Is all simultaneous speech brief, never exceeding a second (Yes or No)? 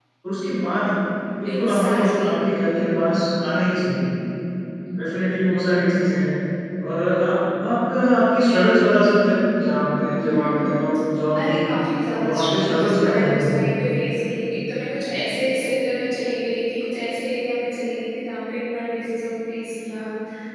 No